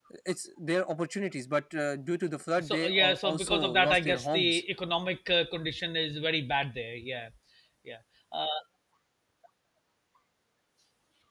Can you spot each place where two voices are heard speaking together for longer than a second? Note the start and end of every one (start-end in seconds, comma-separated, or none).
2.6-4.6